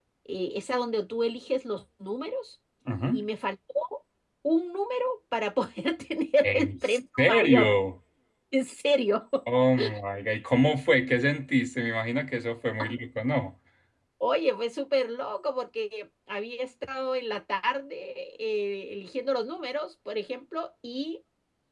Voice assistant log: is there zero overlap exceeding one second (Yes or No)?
No